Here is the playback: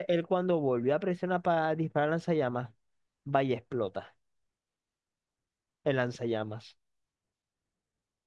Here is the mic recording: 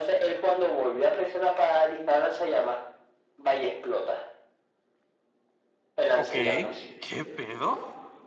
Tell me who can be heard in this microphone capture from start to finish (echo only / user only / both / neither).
both